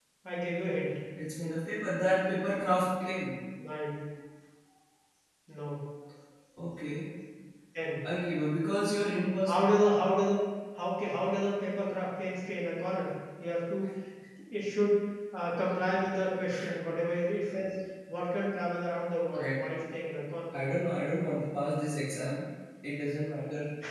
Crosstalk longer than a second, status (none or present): none